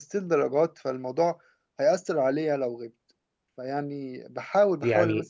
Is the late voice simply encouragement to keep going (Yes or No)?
Yes